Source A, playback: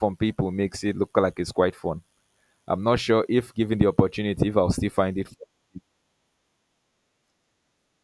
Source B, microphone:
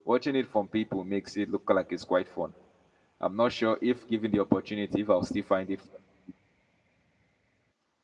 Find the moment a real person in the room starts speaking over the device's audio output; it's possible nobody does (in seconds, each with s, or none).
none